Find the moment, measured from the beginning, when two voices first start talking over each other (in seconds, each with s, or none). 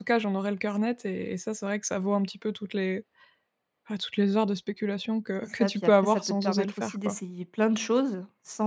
5.4 s